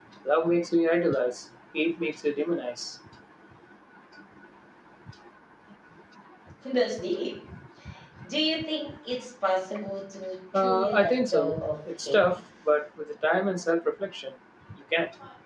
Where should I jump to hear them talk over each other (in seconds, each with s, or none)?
10.5 s